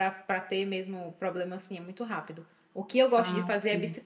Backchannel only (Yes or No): Yes